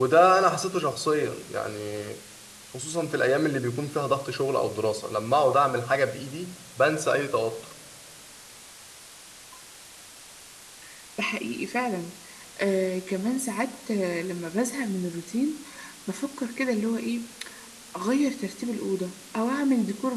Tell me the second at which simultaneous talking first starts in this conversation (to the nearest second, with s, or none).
none